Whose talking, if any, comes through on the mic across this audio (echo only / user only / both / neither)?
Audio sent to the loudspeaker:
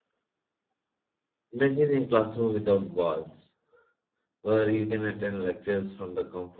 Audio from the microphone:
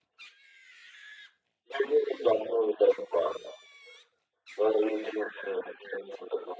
echo only